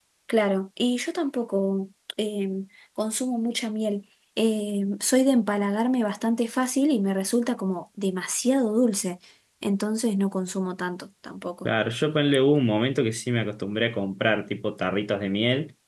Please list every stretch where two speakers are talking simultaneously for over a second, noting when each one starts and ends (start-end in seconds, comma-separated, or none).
none